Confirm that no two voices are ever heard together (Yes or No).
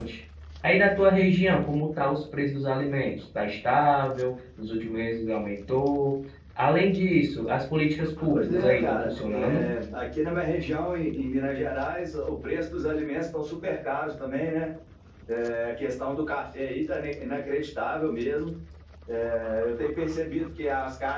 No